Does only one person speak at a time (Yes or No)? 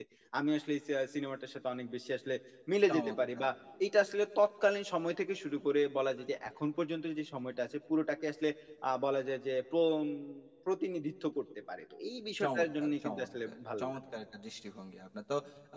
No